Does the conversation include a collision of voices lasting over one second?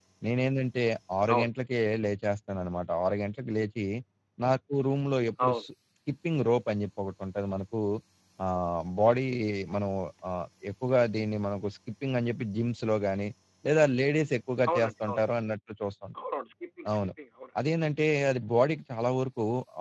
No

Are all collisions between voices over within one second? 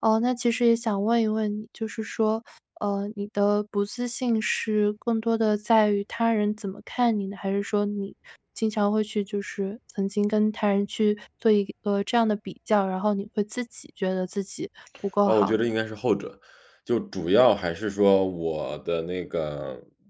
Yes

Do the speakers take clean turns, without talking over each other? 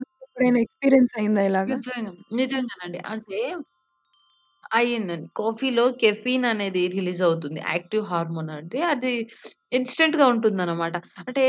Yes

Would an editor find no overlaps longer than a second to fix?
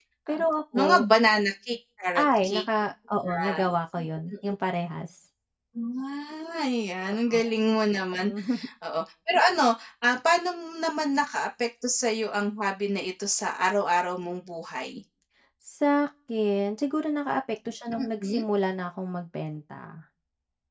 Yes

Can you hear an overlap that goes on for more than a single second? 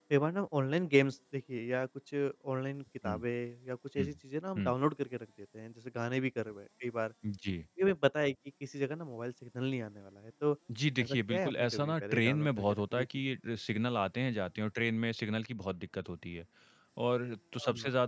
Yes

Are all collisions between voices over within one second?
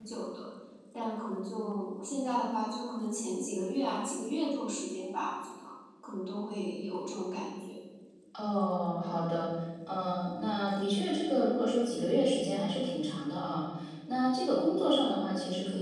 Yes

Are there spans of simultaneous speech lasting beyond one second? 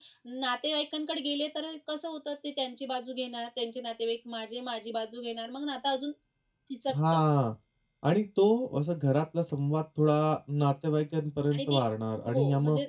No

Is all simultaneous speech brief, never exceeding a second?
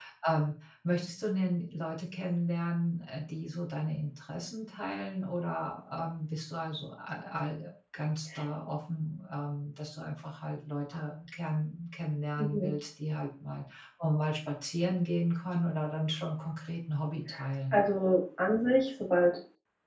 Yes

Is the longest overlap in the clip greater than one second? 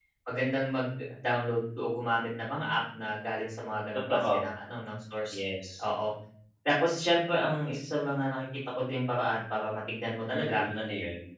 No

